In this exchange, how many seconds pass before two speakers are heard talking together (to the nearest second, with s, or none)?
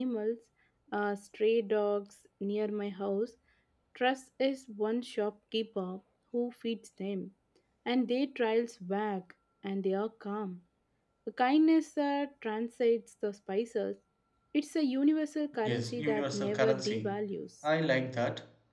16 s